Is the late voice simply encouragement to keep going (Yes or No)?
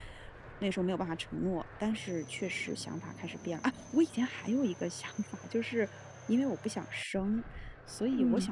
Yes